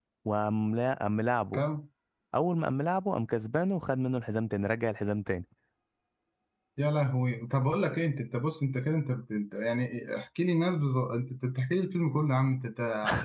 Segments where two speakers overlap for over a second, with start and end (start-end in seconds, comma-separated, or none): none